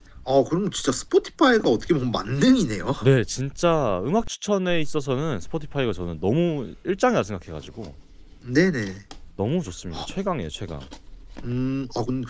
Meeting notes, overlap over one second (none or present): none